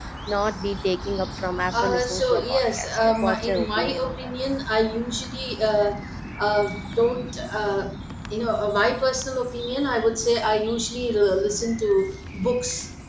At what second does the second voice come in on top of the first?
1.7 s

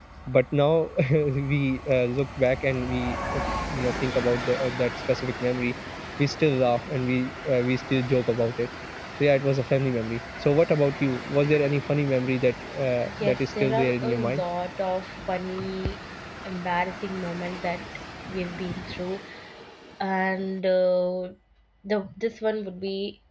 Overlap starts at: 13.1 s

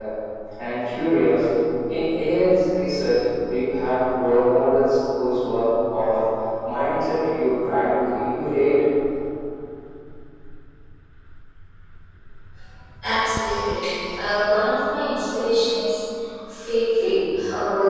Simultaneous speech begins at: none

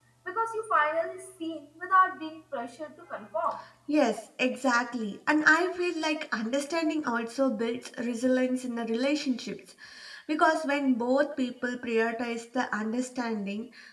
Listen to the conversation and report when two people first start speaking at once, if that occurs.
none

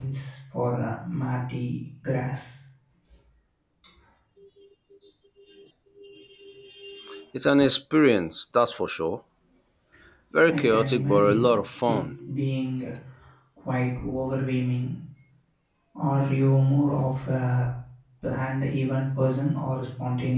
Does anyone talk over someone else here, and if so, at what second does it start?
10.5 s

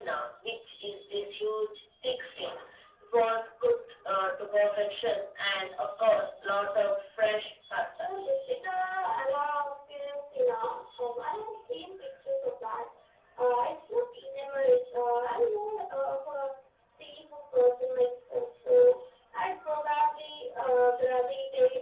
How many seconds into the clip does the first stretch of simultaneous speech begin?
none

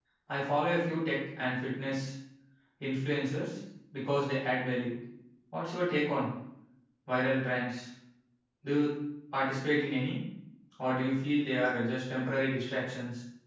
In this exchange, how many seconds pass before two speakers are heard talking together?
none

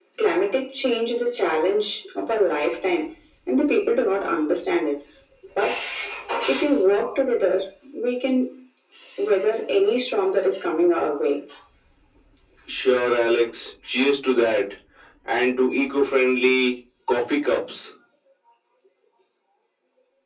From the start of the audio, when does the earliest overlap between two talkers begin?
none

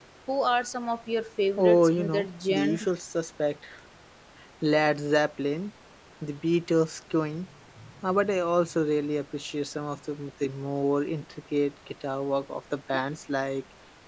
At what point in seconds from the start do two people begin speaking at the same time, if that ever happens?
1.6 s

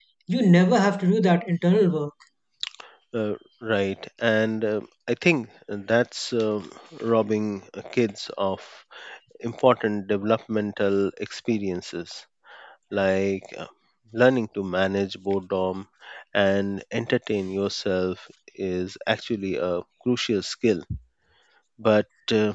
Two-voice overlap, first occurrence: none

